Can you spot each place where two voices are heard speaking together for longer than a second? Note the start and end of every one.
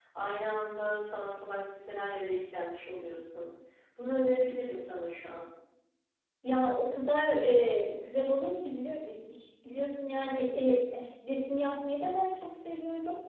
none

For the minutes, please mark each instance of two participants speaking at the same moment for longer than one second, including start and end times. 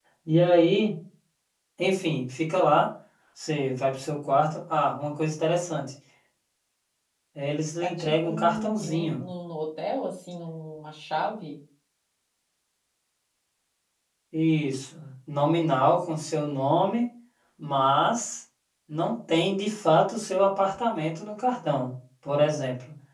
7.8-9.2

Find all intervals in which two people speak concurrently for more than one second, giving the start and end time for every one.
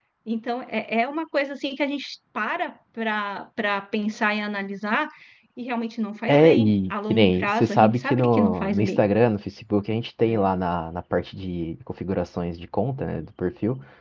6.3-9.0

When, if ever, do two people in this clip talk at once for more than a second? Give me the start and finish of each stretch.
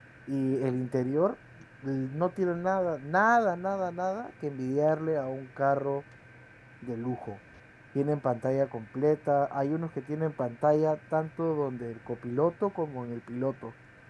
none

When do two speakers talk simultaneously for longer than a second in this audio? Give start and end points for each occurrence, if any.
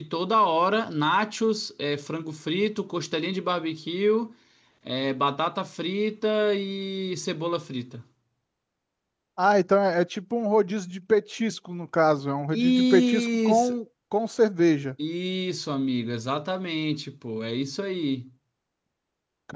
12.5-13.7

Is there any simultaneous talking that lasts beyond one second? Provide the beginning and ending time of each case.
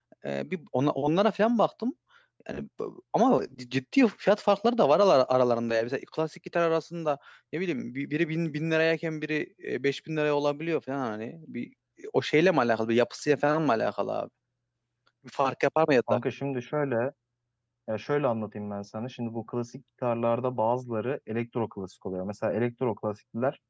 none

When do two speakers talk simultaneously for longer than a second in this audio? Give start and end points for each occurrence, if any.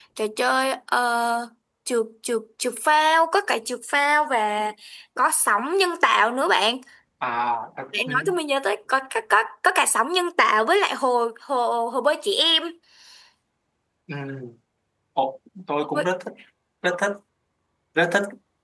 none

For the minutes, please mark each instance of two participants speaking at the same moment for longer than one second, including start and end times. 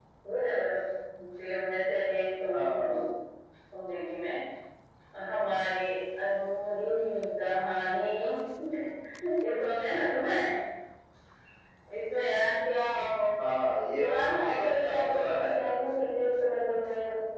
14.0-15.7

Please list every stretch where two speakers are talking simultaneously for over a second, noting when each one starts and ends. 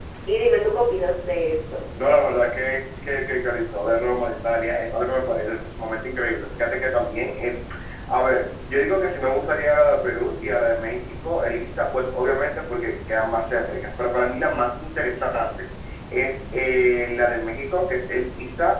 none

